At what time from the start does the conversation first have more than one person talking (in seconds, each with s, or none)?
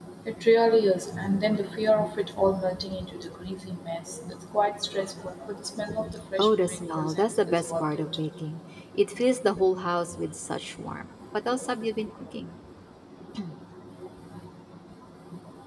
6.4 s